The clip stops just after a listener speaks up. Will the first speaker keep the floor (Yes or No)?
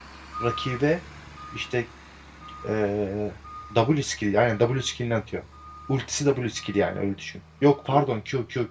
Yes